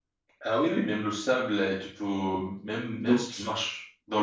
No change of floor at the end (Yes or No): Yes